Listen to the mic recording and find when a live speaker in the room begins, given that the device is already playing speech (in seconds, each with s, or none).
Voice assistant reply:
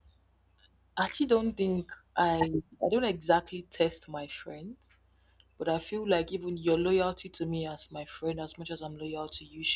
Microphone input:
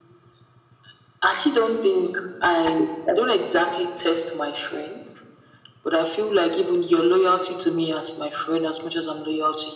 none